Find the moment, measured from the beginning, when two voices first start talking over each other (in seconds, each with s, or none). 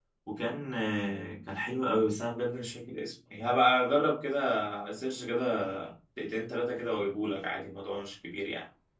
none